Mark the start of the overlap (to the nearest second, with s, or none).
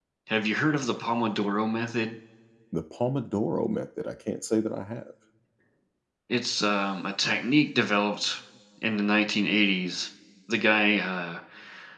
none